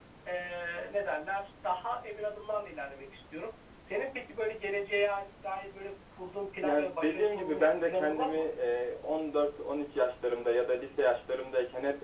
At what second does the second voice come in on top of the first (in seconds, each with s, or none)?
6.6 s